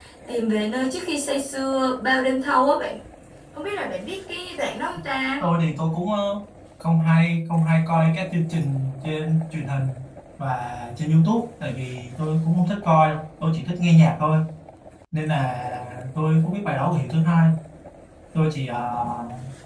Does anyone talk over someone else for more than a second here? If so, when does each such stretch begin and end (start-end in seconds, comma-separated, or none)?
none